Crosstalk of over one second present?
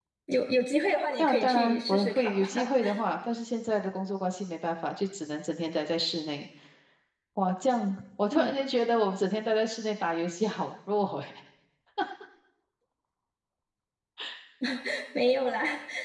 Yes, from 1.2 s

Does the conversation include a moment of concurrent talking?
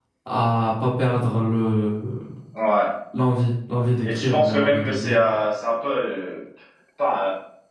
Yes, from 4.0 s

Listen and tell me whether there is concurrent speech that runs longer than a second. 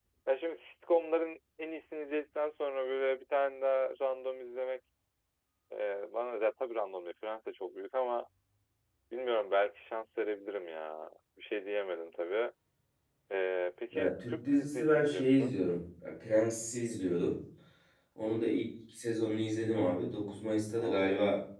Yes, from 13.9 s

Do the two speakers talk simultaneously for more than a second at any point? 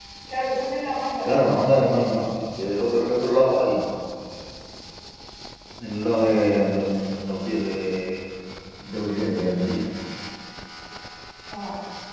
No

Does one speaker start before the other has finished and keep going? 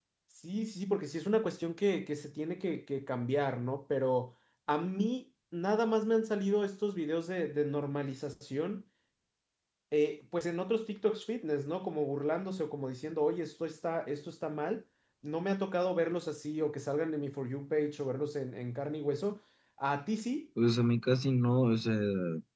No

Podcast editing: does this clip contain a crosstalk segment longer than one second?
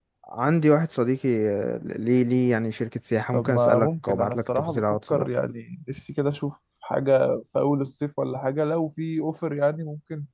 Yes, from 3.3 s

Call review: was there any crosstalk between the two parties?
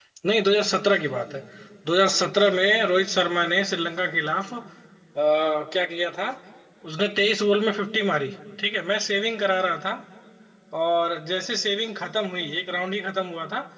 No

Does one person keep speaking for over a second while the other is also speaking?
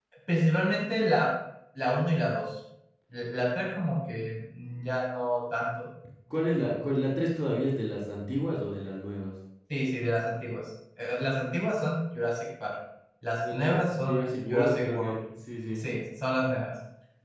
Yes, from 13.5 s

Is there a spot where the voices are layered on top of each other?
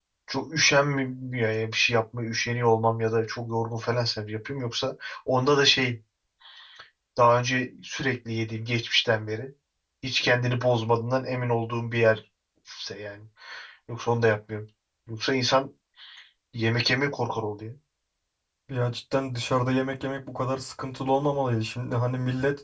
No

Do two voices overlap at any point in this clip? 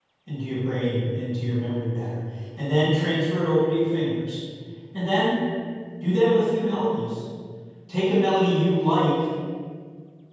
No

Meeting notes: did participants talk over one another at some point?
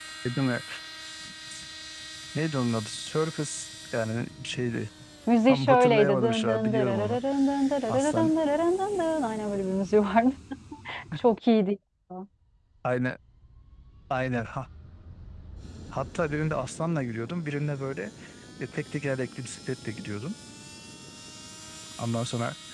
Yes, from 5.5 s

